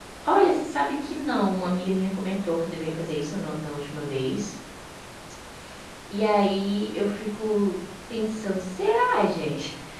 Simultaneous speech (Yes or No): No